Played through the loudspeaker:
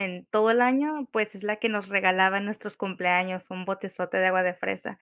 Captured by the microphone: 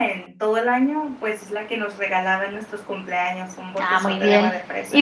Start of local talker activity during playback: 3.8 s

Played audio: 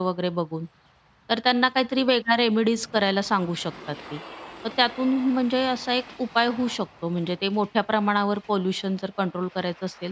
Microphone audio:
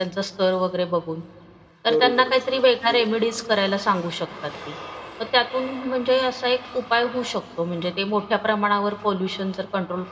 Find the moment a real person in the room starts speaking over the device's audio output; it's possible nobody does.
1.9 s

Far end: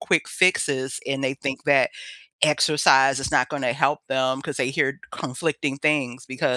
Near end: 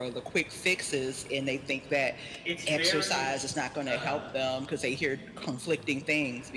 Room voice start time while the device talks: 2.4 s

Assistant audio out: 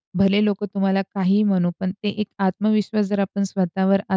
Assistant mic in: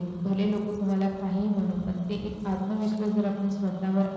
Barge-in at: none

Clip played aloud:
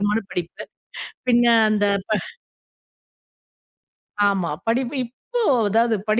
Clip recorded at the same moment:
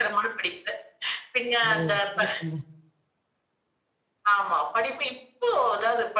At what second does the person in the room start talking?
1.6 s

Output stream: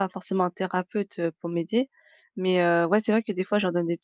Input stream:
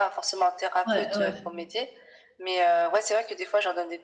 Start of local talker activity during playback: 0.8 s

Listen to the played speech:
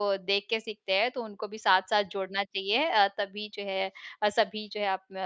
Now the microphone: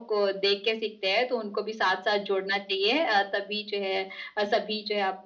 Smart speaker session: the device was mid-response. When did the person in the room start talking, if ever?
none

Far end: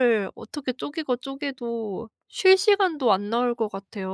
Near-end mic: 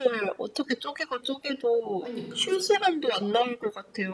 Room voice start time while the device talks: 2.0 s

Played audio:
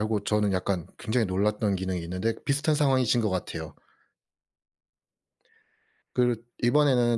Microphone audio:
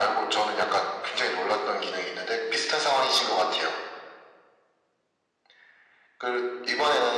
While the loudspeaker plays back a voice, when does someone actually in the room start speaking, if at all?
none

